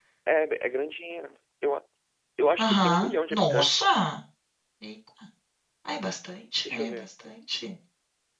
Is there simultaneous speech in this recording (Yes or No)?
Yes